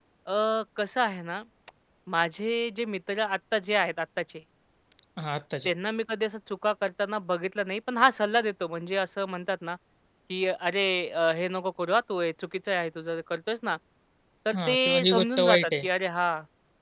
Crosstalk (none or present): present